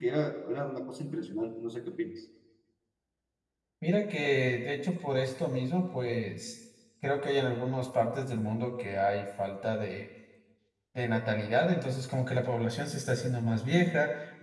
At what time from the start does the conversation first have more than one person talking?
none

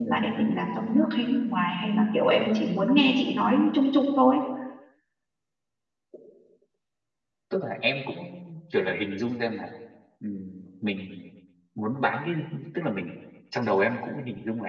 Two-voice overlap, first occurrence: none

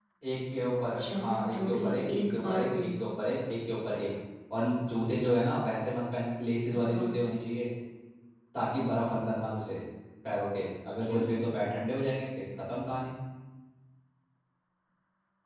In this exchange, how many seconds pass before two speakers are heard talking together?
1 s

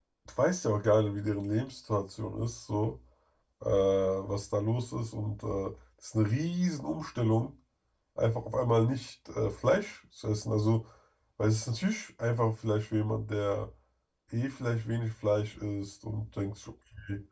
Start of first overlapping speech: none

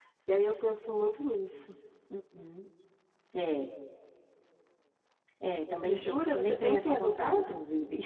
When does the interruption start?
6 s

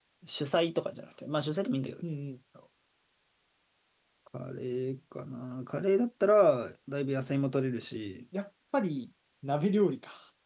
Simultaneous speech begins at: none

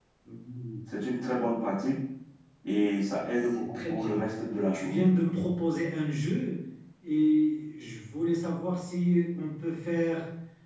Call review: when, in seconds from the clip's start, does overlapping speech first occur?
3 s

